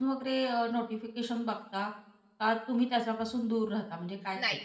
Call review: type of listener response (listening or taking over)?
taking over